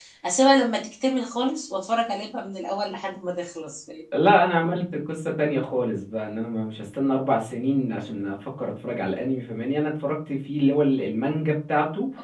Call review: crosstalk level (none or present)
none